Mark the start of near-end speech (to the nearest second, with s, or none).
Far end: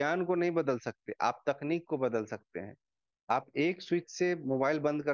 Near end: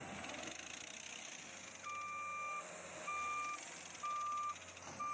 none